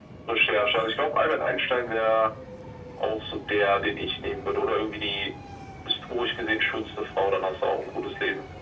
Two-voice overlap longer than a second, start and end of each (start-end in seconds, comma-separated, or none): none